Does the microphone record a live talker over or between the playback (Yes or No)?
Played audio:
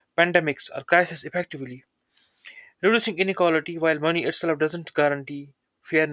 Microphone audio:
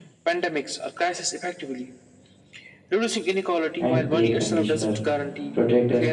Yes